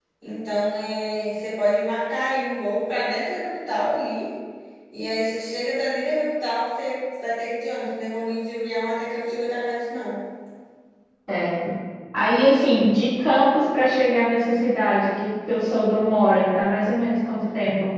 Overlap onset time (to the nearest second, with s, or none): none